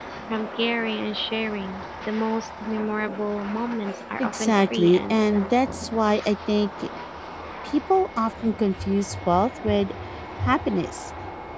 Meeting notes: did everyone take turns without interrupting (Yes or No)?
No